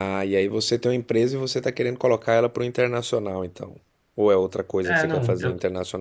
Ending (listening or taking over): taking over